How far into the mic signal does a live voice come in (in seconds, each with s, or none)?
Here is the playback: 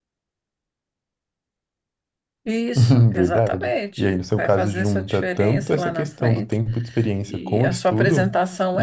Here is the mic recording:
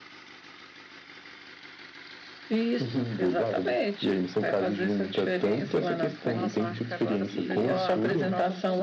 6.2 s